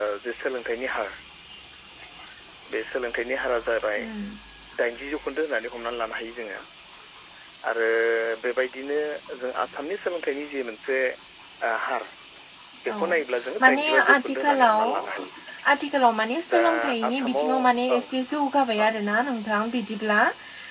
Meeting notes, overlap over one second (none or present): present